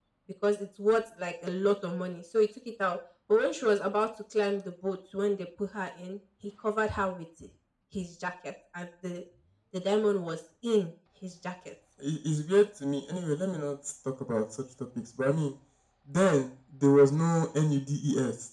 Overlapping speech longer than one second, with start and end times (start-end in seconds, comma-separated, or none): none